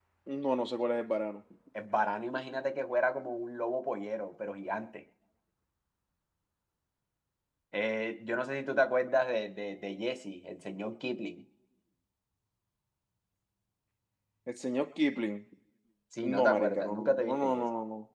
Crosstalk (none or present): present